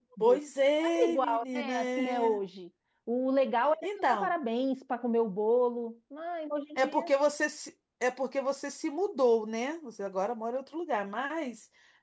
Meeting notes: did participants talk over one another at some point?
Yes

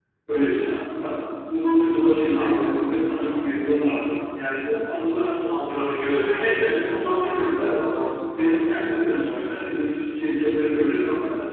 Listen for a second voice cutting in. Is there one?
Yes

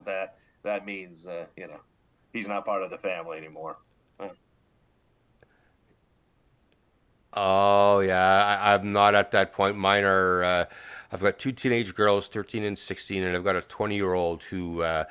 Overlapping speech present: No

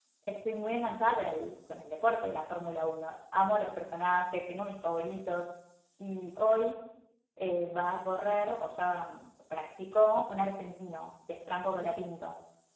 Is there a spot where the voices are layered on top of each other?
No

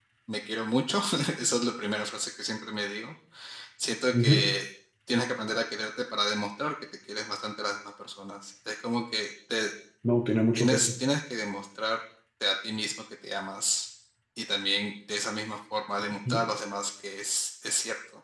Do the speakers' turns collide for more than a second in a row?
No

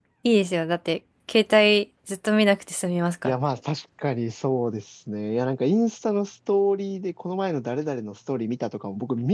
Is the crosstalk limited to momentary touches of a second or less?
Yes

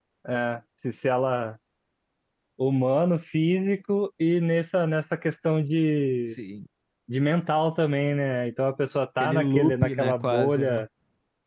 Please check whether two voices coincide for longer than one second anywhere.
Yes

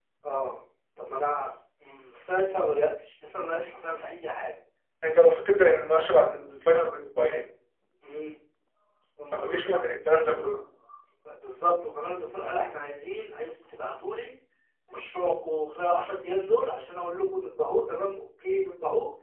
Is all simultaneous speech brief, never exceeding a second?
Yes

